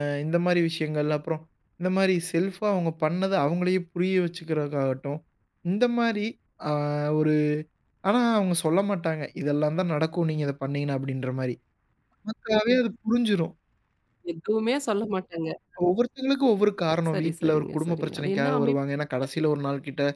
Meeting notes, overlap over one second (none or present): present